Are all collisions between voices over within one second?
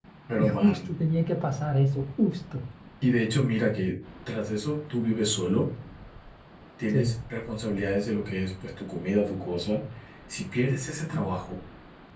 Yes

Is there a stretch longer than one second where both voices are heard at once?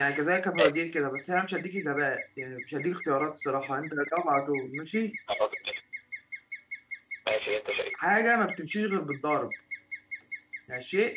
No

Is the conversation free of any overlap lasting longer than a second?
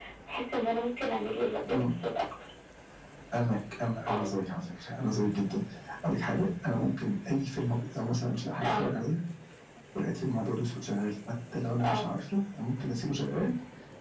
Yes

